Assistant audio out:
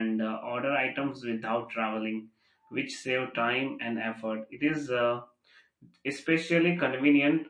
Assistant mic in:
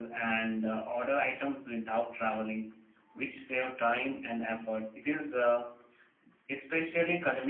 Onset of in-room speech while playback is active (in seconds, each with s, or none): none